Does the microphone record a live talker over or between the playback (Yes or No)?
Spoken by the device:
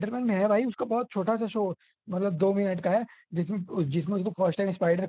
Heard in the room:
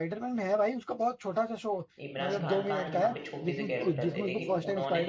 Yes